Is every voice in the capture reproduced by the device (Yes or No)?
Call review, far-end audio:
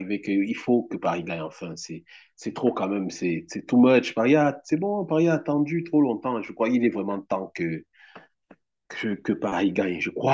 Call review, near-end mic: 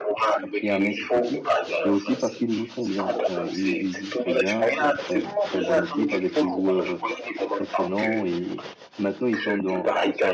No